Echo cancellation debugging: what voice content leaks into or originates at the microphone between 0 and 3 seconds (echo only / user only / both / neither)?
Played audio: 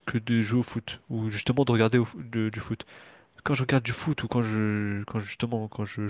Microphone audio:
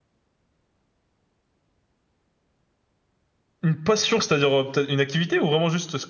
neither